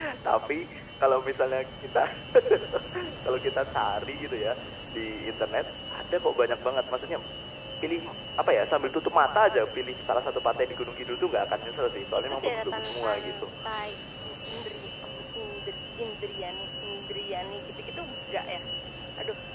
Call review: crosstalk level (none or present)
present